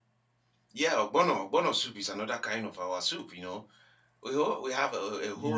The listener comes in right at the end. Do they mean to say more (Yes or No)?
No